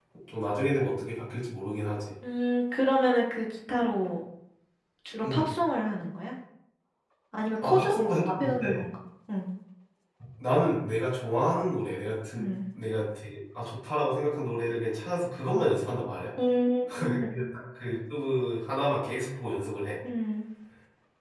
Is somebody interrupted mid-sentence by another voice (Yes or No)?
Yes